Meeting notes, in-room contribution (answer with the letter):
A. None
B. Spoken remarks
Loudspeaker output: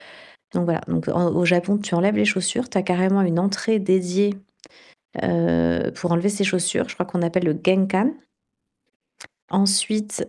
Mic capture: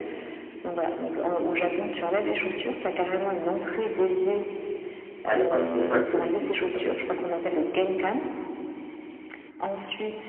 B